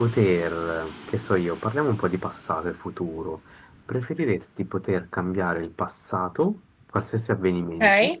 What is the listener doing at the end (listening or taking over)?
listening